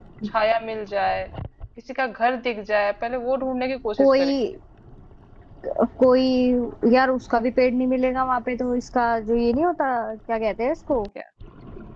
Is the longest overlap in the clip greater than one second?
No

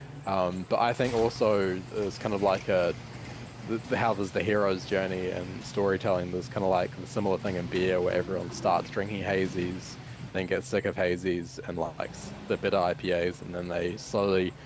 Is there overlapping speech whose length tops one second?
No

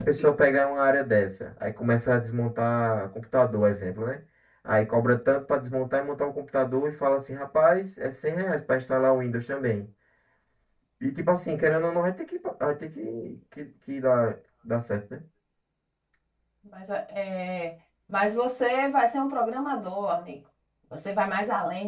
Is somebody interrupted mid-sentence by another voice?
No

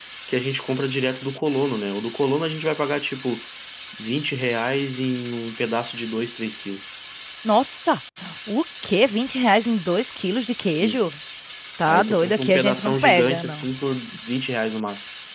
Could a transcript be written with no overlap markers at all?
No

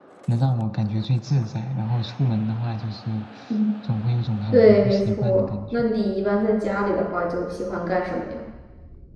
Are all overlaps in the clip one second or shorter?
No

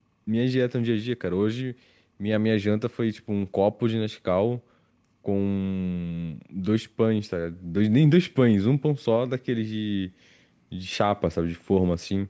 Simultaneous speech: No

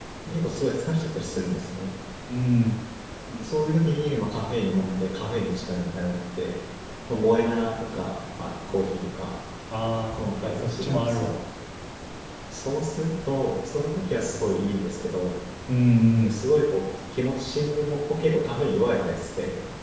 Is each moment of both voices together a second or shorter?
No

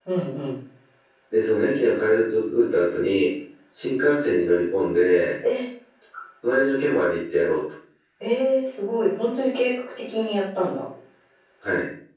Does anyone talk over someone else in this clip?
No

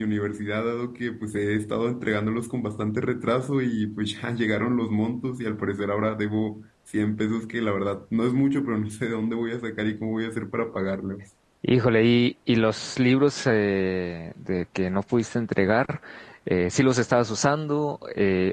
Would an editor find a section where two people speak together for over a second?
No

